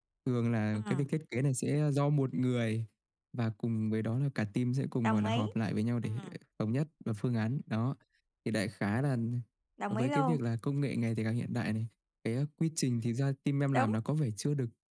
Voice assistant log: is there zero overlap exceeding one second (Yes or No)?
Yes